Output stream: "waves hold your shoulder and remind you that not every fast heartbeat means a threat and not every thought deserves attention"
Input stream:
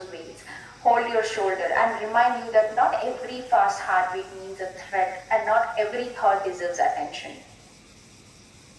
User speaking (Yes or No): No